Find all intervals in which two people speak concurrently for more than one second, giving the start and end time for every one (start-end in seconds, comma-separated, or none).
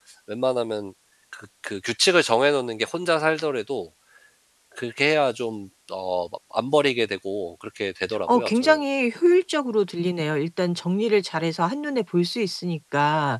none